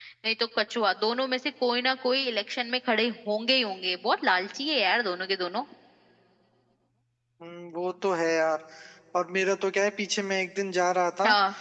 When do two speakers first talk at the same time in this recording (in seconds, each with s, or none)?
none